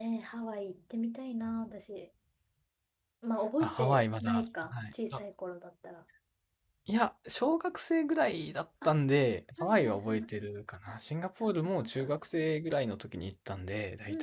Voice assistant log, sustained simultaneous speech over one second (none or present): present